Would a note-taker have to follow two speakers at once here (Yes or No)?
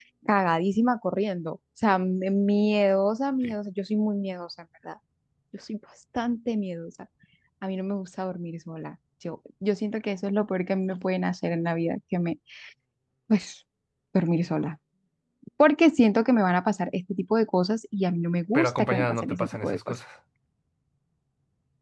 Yes